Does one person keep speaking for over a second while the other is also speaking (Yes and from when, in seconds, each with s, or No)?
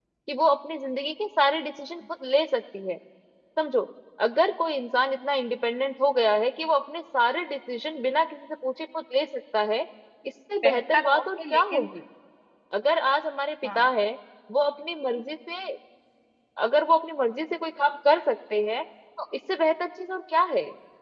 Yes, from 10.6 s